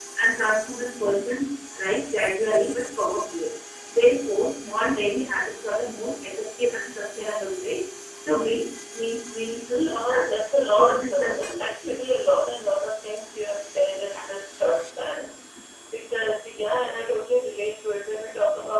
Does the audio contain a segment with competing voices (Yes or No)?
Yes